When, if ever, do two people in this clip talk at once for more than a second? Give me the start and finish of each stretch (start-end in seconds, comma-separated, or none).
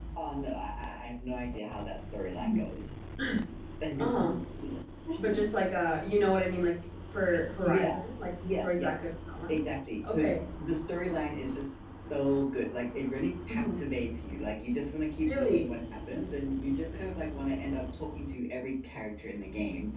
none